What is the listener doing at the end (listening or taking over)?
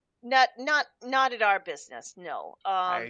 listening